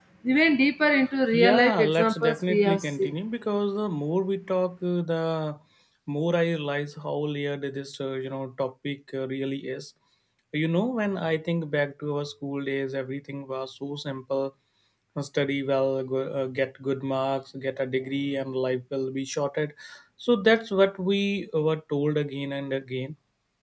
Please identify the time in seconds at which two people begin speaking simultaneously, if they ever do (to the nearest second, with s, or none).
1 s